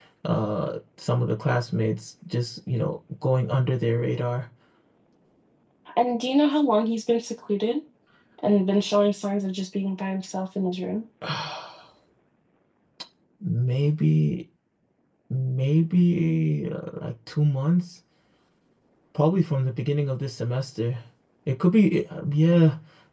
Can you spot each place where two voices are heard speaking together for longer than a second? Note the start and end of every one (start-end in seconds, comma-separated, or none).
none